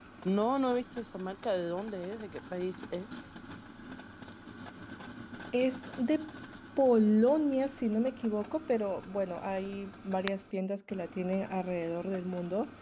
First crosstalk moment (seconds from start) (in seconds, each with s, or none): none